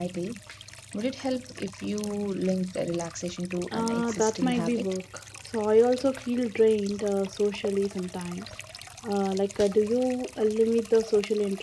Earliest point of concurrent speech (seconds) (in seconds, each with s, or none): 3.7 s